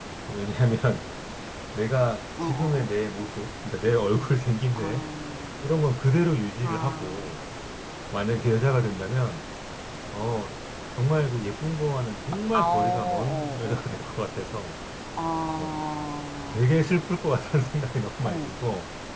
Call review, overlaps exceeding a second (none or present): present